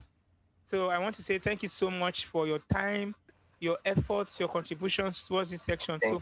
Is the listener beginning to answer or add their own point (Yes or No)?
Yes